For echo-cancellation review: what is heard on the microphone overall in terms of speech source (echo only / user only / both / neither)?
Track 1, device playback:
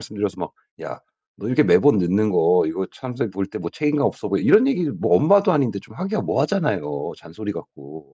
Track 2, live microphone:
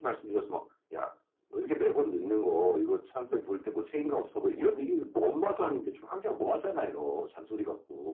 echo only